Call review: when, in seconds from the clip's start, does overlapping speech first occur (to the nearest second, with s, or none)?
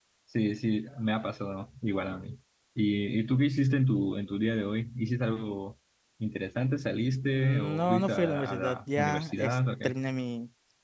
7 s